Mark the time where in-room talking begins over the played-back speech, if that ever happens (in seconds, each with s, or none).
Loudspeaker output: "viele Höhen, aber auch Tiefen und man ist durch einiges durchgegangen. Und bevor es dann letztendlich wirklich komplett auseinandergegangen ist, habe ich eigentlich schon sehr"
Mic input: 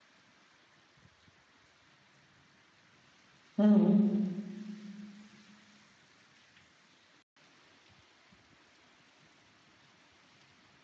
3.6 s